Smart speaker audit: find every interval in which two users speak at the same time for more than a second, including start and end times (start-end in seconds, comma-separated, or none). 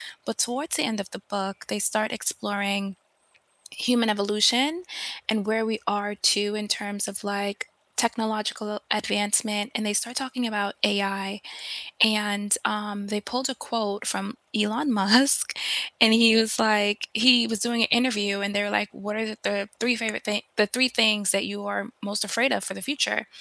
none